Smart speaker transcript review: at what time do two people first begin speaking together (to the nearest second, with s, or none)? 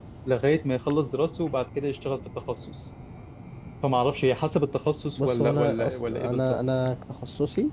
5 s